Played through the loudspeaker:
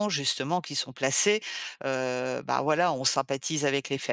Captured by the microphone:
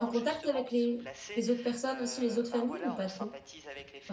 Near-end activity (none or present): present